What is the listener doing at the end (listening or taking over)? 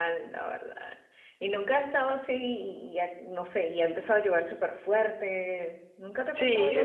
taking over